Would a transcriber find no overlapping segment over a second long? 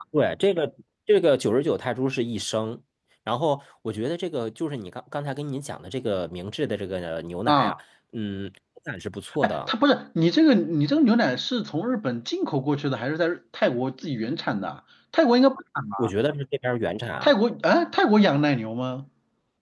Yes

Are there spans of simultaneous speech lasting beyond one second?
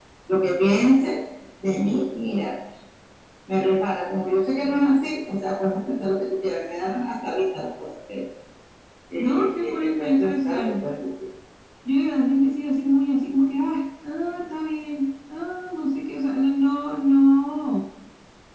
Yes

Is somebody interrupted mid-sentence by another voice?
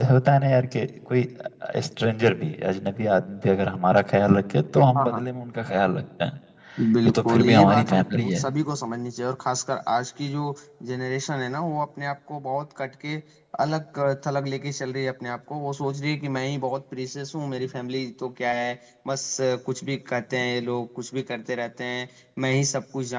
Yes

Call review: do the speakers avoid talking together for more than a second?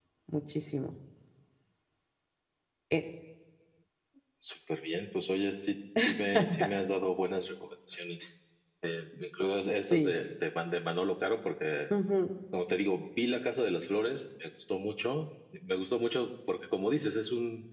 Yes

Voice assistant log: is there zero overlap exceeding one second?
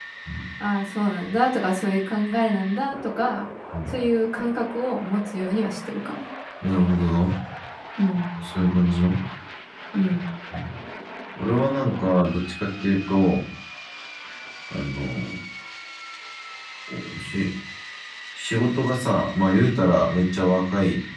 Yes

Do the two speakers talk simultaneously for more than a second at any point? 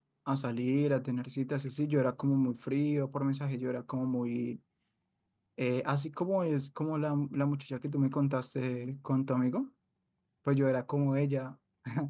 No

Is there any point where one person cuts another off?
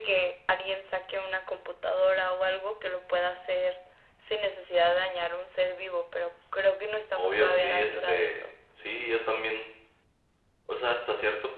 Yes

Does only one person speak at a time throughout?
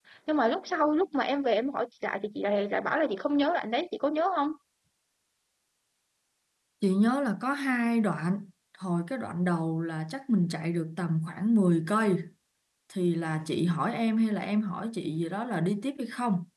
Yes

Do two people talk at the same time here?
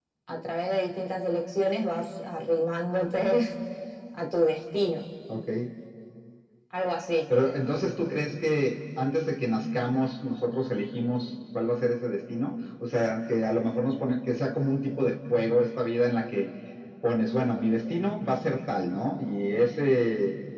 No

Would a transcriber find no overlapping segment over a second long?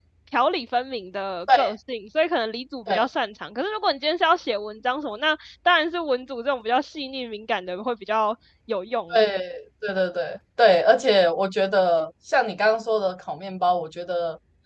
Yes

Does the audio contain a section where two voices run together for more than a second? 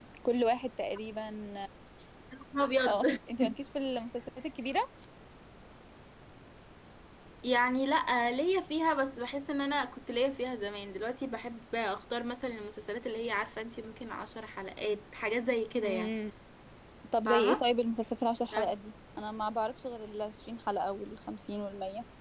No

